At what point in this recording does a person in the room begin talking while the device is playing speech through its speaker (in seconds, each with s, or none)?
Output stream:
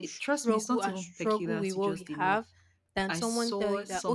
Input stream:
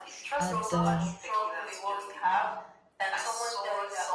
0.4 s